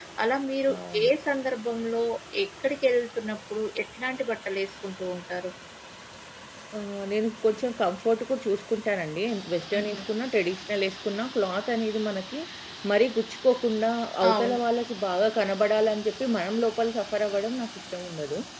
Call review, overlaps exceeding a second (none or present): none